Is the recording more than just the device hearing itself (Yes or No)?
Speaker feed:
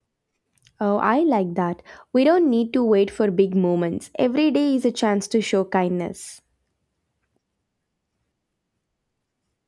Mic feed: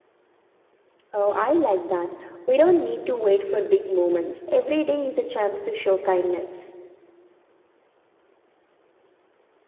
No